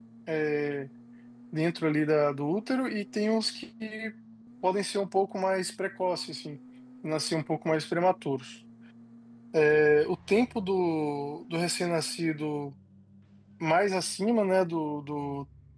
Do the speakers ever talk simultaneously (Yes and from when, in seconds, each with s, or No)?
No